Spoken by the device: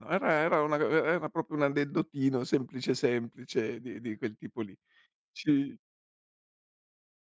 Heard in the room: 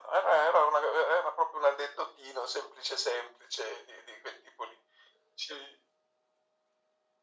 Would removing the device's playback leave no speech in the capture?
Yes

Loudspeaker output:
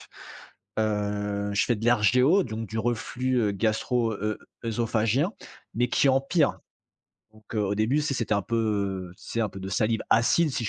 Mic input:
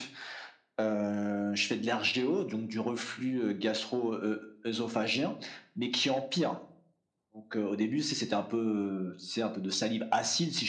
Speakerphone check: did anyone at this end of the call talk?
No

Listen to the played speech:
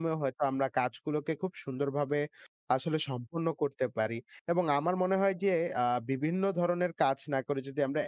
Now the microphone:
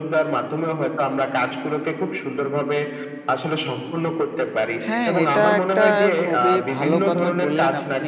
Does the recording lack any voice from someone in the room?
No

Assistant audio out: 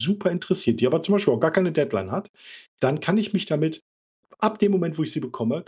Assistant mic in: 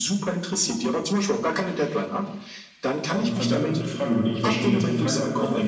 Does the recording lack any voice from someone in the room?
No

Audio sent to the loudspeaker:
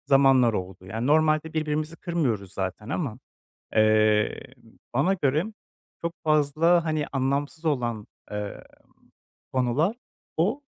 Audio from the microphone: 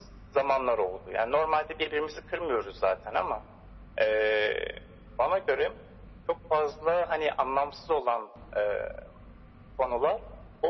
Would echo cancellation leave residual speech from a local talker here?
No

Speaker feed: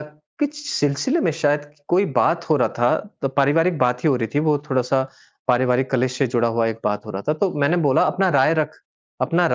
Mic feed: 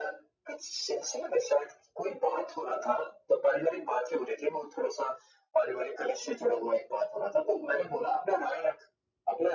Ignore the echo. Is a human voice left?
No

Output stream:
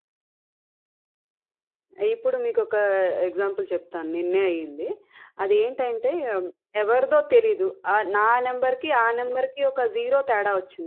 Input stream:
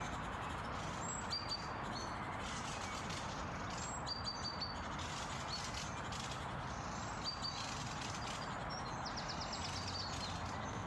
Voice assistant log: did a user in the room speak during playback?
No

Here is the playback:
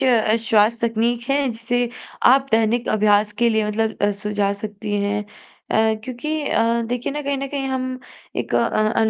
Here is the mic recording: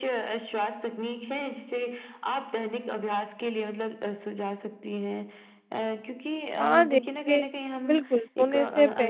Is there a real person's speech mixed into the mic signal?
Yes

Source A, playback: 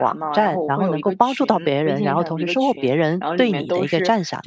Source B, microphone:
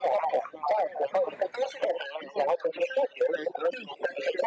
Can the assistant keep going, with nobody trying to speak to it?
Yes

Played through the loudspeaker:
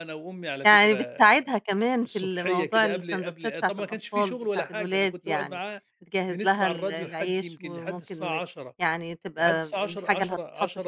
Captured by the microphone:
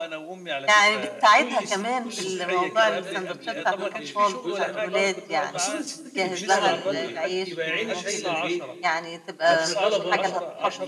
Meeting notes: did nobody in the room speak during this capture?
No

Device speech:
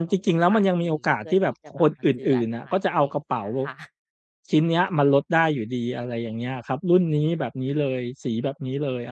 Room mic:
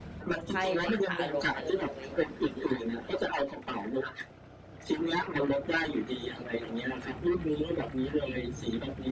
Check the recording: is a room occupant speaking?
Yes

